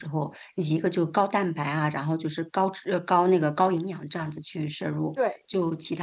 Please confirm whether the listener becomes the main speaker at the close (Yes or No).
No